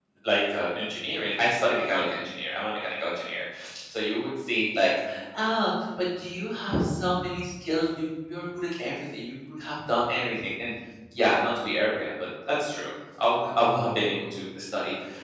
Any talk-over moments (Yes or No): No